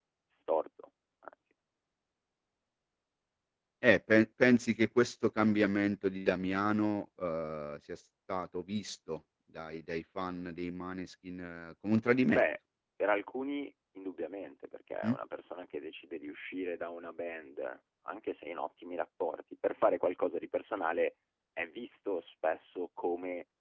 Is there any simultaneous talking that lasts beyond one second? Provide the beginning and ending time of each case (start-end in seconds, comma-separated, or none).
none